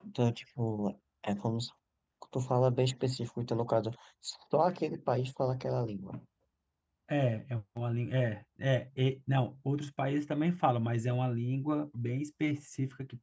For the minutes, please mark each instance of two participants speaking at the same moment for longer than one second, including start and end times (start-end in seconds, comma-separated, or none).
none